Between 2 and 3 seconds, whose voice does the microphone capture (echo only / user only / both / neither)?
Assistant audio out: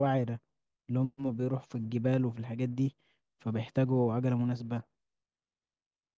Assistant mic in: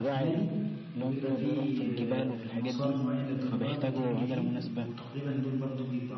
both